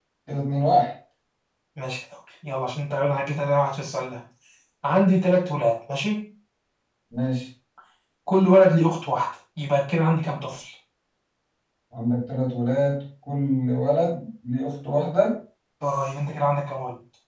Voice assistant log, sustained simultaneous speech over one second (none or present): none